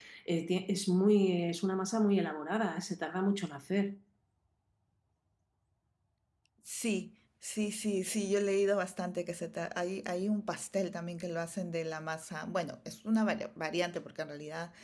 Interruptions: none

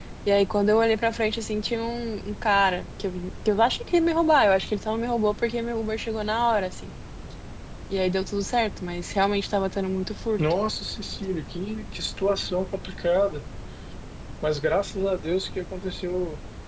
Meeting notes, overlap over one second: none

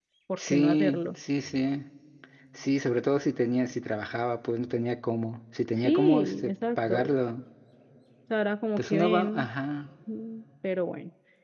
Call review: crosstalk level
present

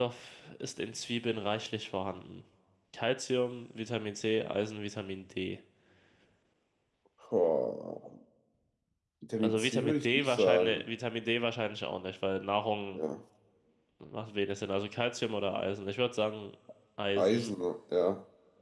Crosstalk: present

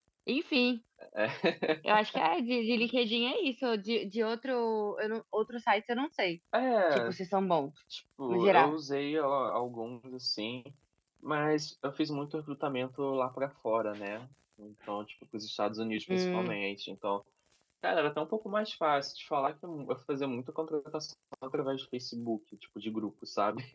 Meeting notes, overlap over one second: none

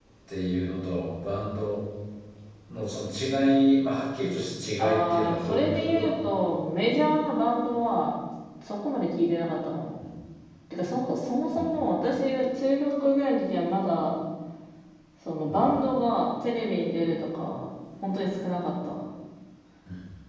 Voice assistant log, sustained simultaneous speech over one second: present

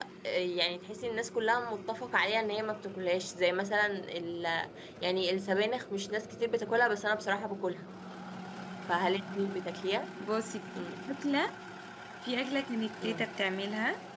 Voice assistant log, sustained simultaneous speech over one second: none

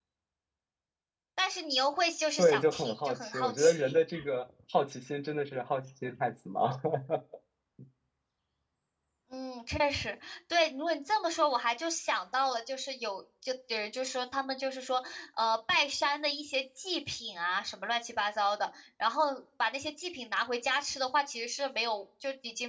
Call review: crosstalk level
present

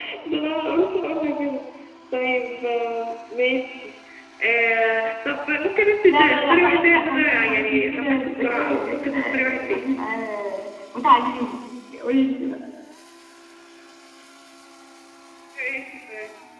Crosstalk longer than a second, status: present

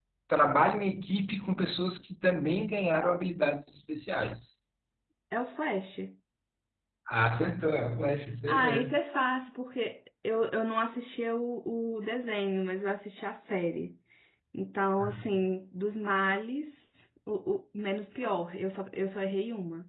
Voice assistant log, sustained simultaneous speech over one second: none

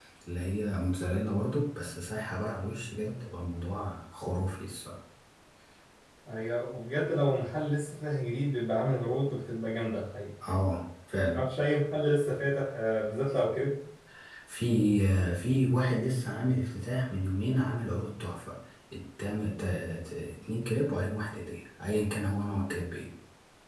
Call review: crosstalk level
none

